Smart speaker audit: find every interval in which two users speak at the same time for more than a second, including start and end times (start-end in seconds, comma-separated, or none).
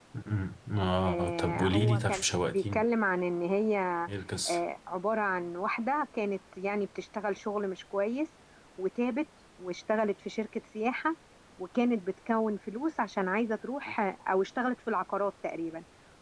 1.1-2.8